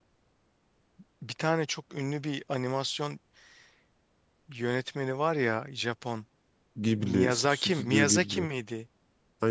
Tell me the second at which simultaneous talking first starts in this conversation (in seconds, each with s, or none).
7.0 s